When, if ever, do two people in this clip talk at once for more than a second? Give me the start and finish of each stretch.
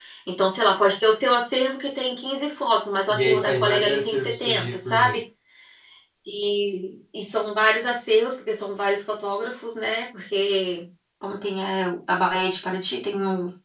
3.1-5.2

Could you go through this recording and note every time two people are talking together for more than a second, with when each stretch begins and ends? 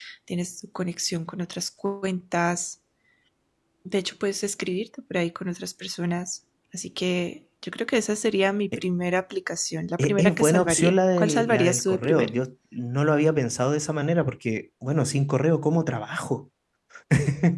10.0-12.3

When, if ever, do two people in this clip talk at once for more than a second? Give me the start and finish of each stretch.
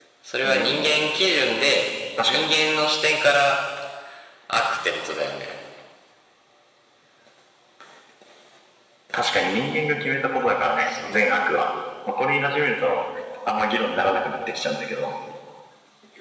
none

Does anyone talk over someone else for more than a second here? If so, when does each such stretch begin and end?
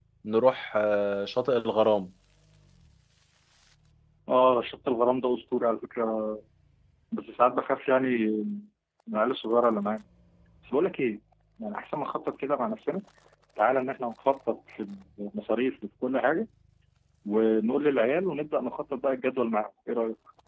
none

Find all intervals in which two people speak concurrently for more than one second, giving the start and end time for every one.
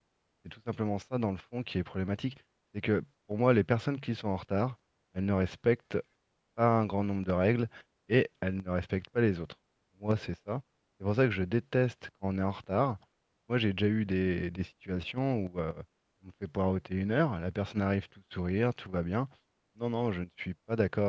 none

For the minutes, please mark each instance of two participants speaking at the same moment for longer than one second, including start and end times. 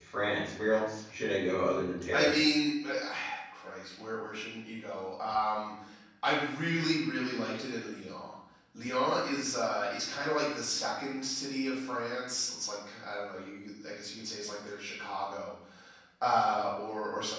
none

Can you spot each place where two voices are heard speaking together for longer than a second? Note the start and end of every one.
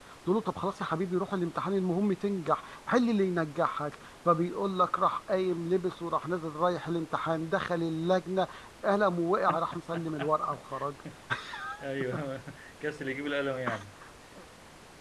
none

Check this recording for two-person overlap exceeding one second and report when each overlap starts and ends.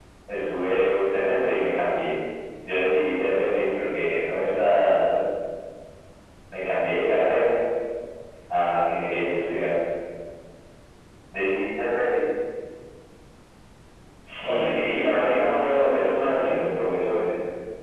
14.5-16.6

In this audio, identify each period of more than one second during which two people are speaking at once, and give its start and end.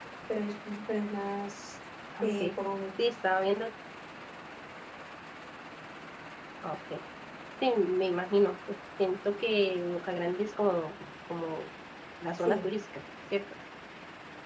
none

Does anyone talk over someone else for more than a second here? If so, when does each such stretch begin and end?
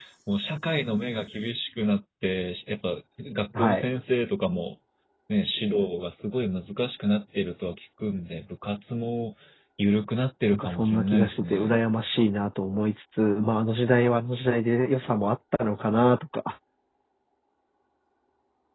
10.5-11.8

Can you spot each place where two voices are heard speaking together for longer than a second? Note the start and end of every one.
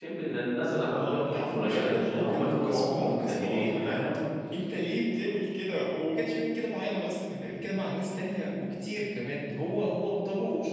0.9-4.0

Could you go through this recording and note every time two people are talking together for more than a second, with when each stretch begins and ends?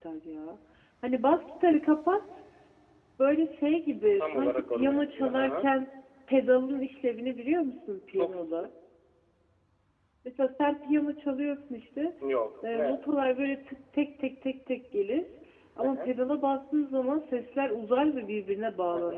4.2-5.7

